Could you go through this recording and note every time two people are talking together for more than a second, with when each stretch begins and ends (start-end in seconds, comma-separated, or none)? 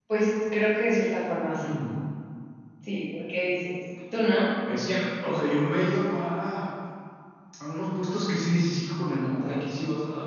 none